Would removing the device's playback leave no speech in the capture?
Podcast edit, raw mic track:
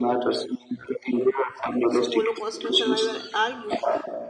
No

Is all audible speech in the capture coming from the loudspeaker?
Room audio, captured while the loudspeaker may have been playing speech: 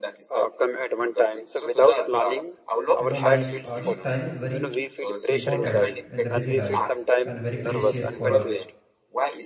No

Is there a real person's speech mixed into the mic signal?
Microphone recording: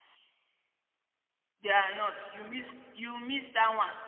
Yes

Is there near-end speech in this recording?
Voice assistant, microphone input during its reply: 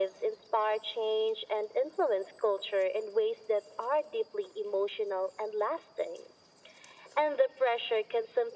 No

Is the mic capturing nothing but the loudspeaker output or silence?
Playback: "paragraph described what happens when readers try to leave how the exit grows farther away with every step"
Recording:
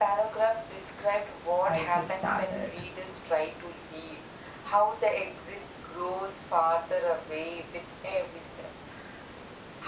No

